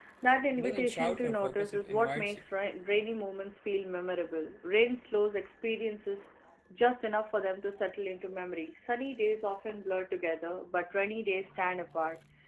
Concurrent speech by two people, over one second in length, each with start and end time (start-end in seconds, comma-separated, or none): 0.6-2.4